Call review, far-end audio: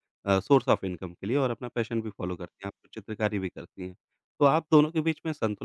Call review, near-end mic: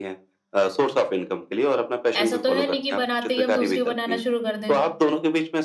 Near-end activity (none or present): present